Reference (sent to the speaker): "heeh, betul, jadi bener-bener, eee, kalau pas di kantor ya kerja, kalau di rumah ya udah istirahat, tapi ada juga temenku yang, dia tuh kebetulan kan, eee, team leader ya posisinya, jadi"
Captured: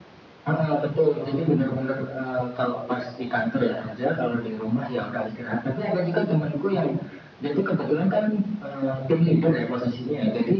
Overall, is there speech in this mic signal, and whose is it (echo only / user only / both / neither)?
both